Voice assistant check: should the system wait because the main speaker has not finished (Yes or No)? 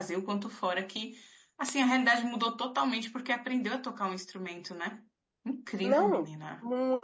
No